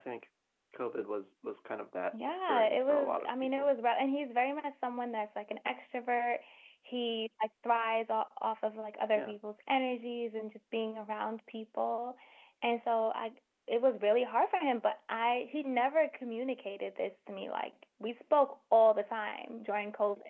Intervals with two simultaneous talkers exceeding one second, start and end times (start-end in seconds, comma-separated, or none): 2.3-3.7